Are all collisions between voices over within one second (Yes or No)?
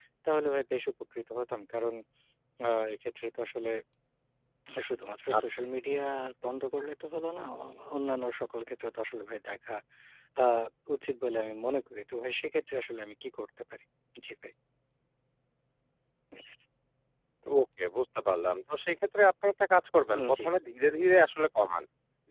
Yes